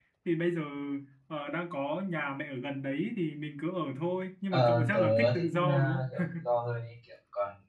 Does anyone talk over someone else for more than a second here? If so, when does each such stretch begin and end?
4.5-6.2

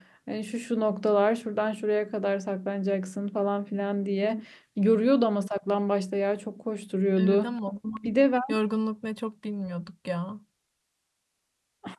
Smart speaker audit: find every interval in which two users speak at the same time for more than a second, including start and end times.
none

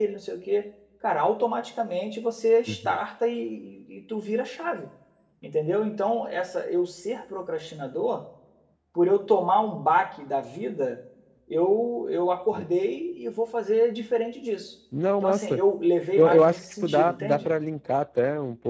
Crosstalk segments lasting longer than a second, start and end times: 16.2-17.5

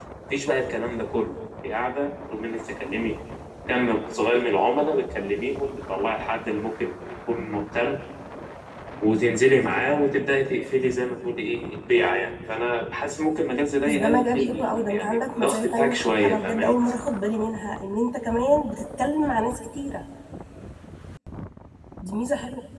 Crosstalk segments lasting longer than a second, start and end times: 13.8-16.8

